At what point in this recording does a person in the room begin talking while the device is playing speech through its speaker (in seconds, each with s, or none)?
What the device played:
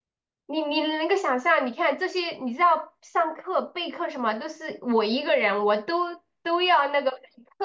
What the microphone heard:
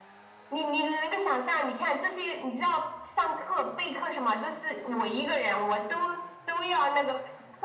none